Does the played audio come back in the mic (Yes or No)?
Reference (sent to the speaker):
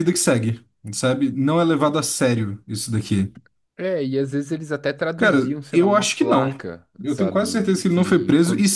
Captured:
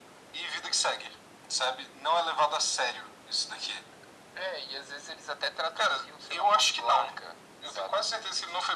Yes